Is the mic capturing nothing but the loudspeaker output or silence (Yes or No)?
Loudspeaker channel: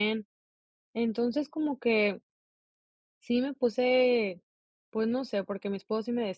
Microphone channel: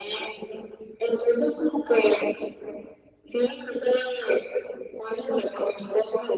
Yes